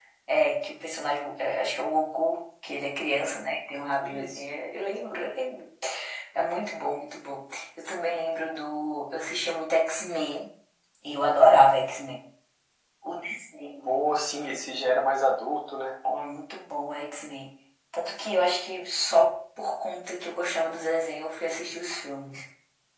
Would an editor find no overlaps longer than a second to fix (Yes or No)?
Yes